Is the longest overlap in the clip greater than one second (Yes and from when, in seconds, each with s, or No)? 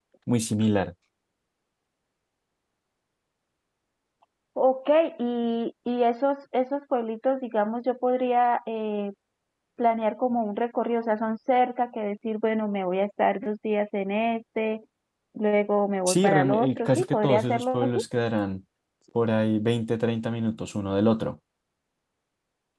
Yes, from 16.1 s